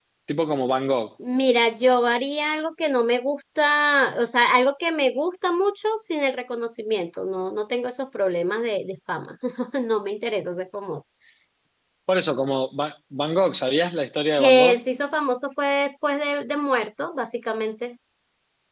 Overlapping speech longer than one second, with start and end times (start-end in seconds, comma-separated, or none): none